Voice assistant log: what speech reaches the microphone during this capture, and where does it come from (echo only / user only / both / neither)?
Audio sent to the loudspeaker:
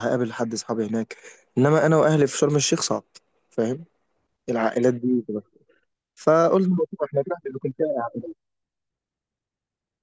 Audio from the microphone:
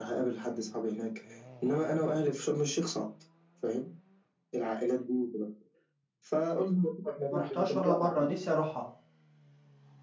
both